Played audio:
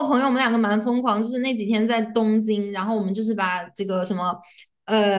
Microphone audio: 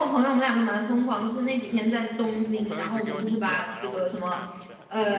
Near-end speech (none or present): present